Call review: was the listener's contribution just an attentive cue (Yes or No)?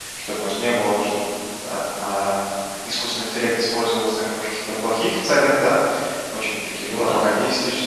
Yes